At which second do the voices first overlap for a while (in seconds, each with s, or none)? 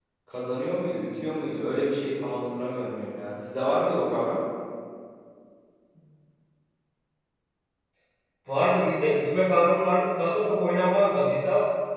none